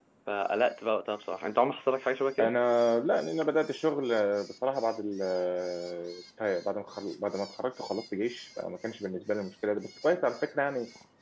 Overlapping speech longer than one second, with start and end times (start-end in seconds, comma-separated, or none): none